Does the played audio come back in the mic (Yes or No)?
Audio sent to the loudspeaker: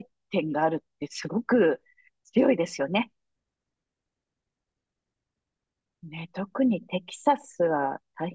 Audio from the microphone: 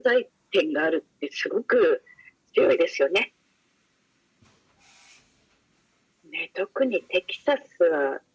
Yes